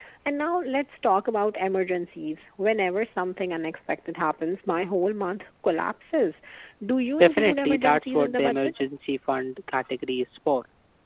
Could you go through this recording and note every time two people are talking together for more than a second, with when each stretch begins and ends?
7.2-8.7

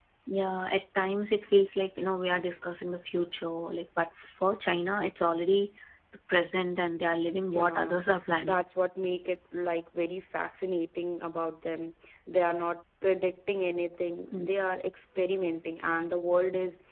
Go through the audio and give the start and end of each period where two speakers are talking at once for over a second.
none

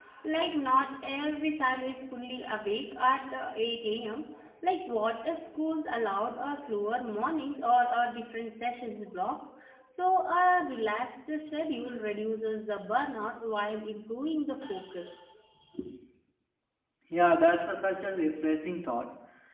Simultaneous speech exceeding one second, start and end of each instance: none

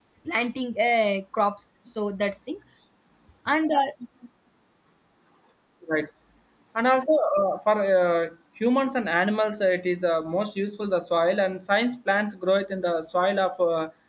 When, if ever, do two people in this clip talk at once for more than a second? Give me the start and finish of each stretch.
none

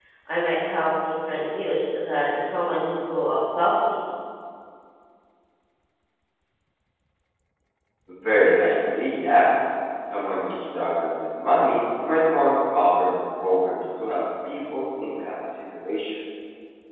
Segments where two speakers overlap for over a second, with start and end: none

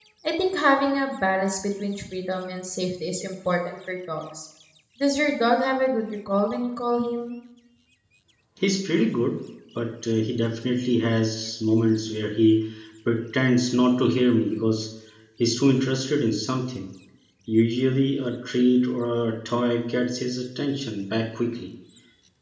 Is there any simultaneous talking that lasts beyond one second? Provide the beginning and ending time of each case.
none

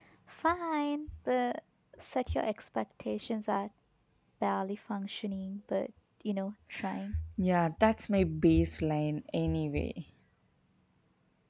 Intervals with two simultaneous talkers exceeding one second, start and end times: none

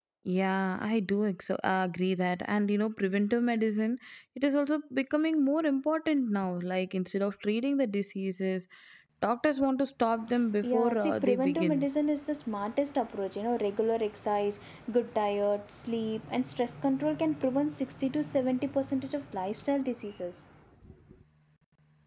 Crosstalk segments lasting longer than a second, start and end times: 10.6-11.9

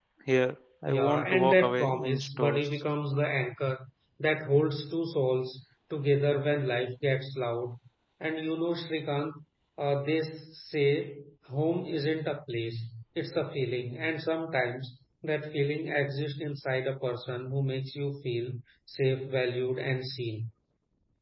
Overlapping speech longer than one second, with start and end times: 0.9-2.7

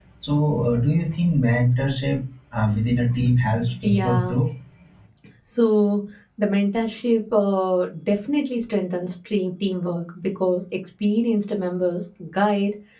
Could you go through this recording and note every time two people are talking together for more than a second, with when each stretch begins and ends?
none

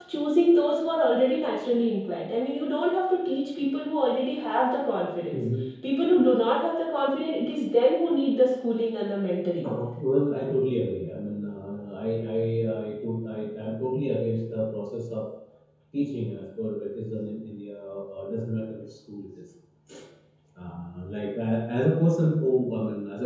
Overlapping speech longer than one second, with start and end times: none

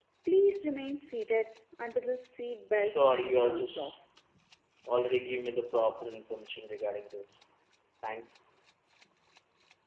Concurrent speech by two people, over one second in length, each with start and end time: 2.8-4.0

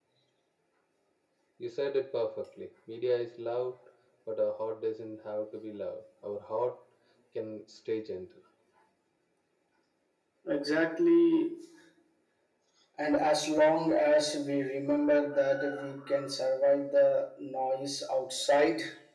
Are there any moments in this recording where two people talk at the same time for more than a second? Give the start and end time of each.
none

